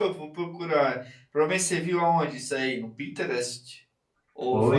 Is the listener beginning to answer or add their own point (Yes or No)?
Yes